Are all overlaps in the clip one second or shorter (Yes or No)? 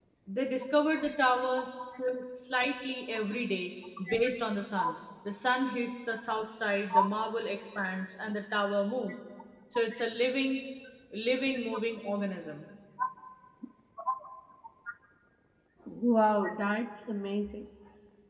Yes